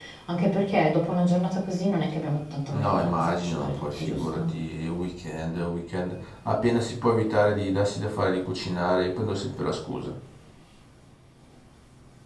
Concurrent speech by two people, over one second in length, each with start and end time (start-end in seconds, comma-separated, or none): 2.7-4.6